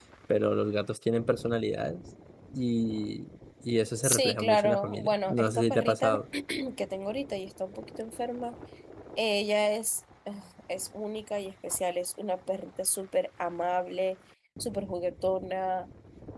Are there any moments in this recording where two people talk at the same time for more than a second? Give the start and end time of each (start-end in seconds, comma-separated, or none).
4.0-6.2